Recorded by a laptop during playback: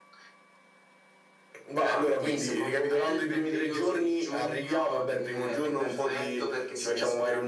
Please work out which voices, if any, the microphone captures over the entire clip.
echo only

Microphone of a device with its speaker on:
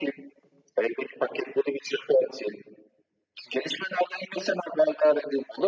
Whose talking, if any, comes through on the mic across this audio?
echo only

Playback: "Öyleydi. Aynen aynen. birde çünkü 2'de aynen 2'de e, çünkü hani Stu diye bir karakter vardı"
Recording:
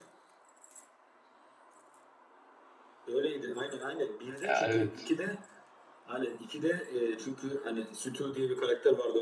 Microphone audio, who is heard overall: both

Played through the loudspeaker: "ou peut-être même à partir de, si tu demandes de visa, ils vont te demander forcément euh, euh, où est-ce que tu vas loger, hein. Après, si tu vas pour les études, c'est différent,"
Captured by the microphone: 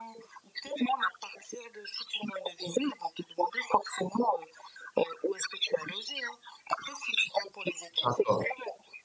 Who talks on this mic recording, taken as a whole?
both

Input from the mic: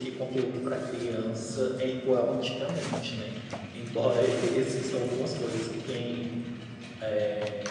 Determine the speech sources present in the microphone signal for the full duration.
echo only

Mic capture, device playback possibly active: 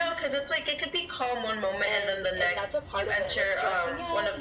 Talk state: both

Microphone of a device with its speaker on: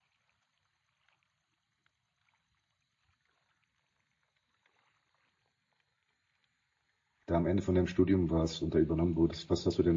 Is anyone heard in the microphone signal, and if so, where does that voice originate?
user only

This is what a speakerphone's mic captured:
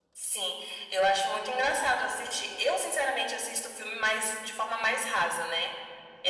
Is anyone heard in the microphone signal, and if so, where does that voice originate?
echo only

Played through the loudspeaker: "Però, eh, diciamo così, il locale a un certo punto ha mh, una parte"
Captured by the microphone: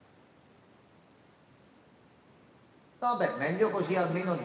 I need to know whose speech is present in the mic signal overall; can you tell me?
user only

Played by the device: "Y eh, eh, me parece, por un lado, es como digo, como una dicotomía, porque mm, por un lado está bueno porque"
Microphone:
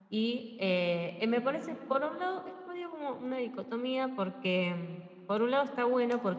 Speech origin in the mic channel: echo only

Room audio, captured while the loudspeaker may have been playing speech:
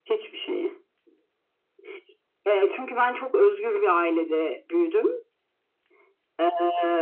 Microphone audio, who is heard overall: echo only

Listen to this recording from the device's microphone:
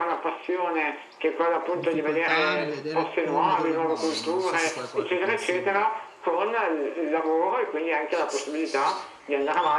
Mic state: both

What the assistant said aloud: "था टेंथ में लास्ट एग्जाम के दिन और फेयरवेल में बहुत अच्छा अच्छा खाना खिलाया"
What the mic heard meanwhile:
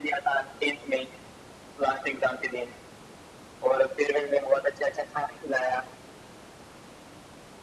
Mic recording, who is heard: echo only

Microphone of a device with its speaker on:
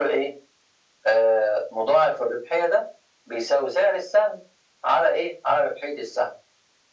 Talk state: echo only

